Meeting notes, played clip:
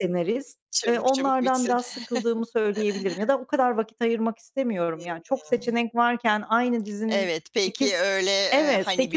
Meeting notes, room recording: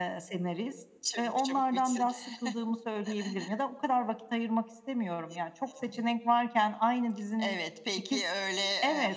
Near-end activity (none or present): none